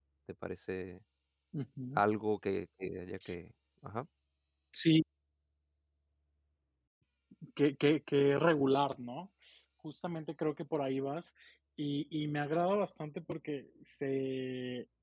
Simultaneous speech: No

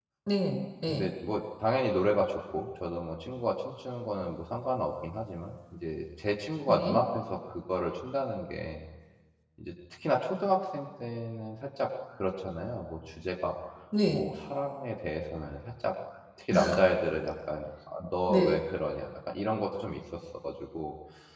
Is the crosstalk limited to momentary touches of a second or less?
Yes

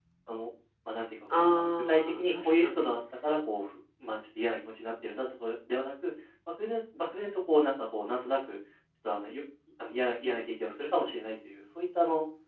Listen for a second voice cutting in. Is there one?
Yes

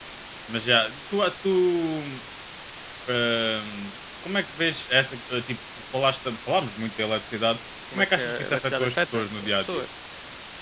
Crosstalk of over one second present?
Yes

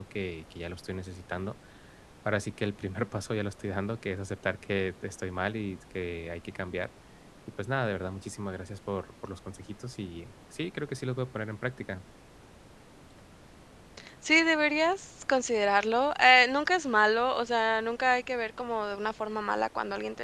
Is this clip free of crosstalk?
Yes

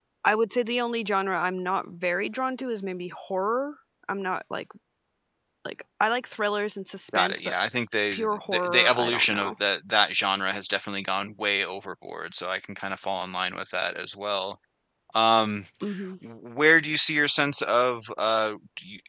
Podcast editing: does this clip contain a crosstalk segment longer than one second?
Yes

